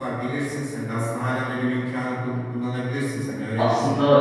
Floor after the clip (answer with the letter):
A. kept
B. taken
B